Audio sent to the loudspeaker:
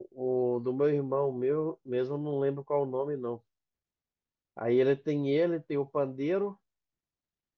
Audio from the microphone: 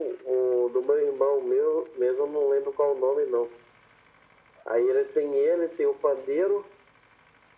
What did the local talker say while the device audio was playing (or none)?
none